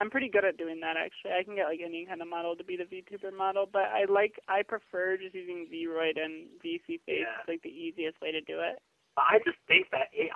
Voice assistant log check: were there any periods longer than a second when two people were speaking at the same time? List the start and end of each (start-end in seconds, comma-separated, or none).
none